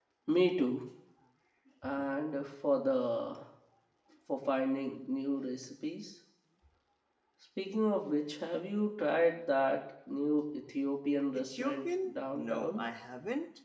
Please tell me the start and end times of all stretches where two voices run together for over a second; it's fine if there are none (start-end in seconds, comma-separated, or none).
11.5-12.9